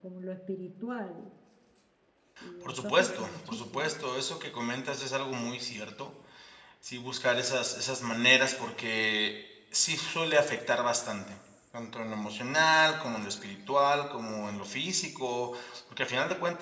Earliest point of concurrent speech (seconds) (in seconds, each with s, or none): 2.6 s